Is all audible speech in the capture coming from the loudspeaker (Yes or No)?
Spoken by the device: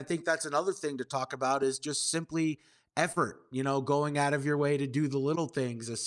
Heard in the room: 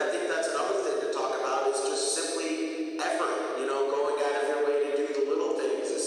Yes